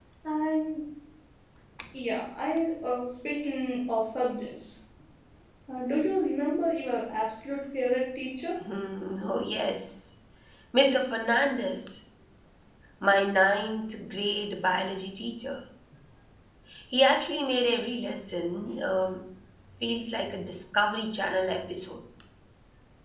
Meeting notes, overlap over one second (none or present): none